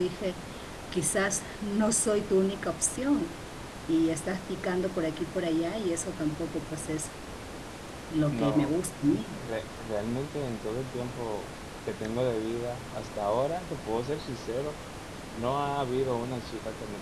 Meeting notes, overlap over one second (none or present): none